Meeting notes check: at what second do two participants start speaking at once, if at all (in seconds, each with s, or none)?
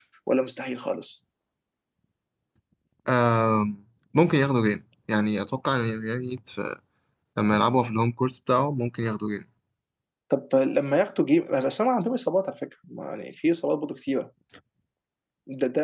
none